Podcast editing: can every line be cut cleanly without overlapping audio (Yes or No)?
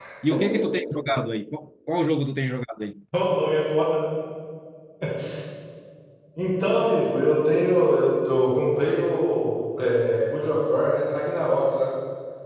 Yes